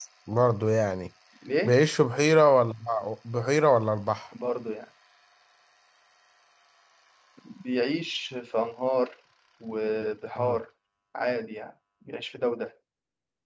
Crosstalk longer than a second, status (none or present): none